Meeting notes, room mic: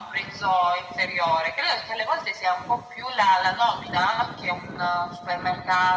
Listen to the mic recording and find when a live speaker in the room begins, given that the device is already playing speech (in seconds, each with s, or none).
none